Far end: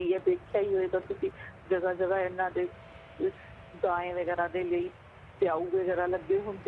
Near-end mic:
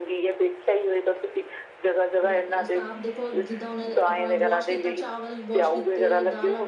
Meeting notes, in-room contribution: present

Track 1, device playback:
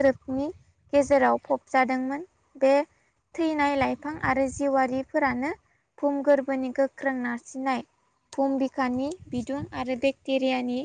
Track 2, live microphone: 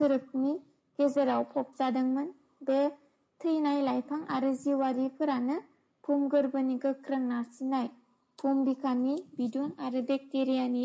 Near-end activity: none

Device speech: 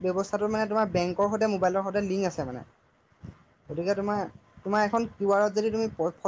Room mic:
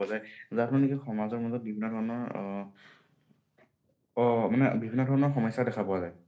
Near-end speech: present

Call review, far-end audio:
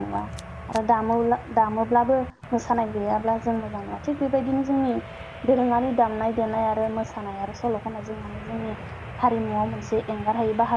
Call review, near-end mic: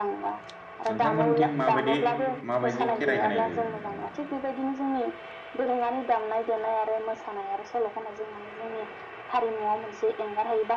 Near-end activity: present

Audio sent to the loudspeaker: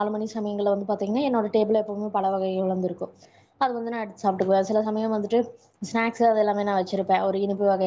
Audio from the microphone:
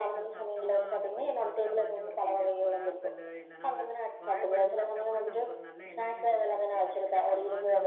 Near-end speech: present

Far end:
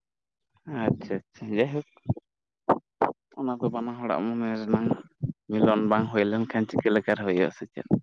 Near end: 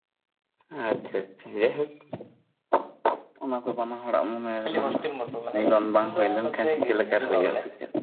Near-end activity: present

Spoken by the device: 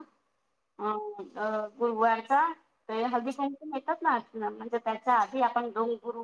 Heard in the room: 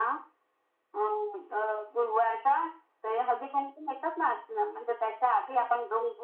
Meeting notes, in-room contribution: none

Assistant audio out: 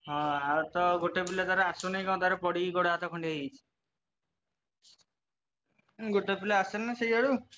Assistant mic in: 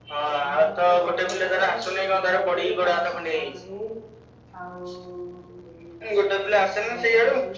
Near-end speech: present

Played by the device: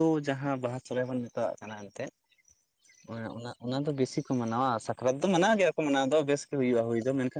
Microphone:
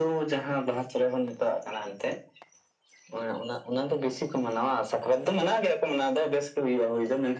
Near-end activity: none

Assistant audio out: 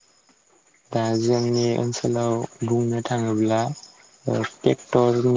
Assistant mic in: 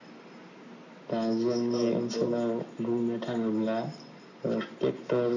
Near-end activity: present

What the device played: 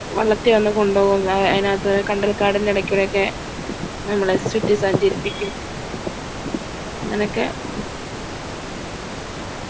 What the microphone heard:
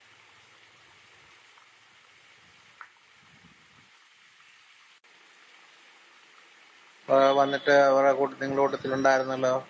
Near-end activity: present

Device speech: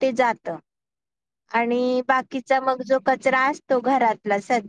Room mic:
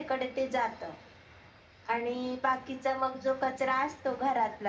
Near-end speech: none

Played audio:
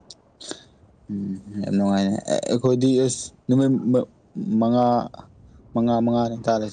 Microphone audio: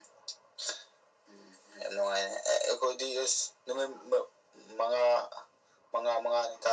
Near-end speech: none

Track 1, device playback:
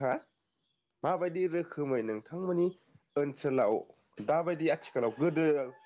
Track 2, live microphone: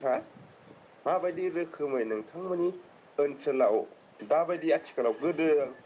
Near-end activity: none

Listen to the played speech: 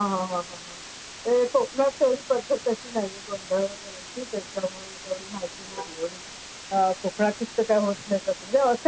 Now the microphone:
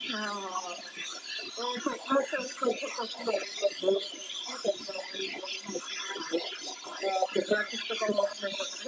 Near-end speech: none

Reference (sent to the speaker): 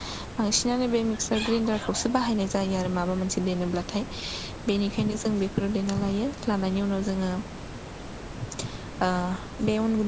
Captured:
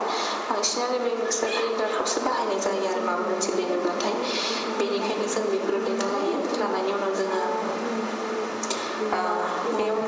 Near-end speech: present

